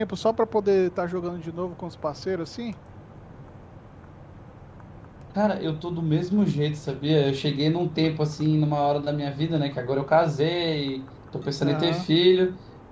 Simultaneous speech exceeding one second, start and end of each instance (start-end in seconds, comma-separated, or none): none